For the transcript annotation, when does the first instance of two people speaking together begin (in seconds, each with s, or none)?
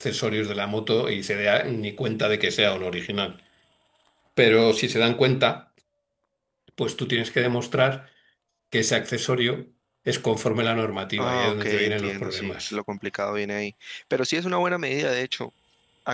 11.2 s